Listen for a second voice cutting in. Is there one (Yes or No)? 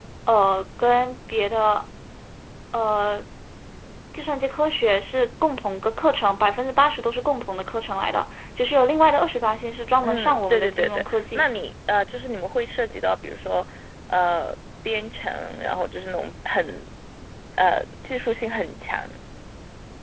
Yes